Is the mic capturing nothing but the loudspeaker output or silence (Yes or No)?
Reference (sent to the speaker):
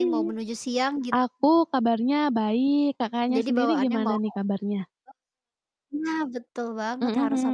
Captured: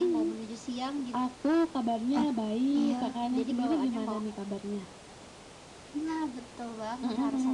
No